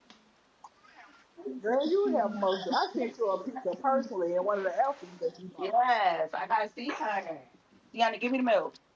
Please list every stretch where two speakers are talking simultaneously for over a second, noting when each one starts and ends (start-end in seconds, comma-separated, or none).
none